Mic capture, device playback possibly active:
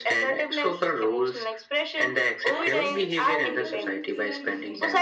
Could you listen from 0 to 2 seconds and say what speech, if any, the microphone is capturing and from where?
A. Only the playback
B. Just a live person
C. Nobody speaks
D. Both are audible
A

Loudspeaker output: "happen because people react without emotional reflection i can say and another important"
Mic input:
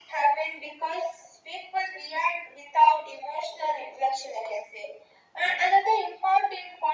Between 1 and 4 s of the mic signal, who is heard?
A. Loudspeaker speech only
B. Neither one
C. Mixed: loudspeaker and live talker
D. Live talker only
A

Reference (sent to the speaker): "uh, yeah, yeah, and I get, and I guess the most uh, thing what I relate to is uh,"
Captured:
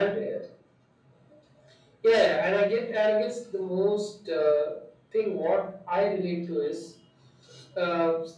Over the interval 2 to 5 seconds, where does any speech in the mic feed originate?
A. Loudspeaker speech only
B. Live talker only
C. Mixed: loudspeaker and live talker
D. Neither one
A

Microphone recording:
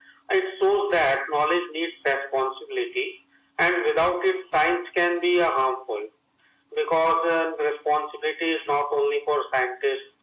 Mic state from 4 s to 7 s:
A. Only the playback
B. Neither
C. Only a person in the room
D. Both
A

